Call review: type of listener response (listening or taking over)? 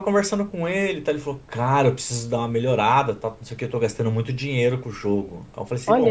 listening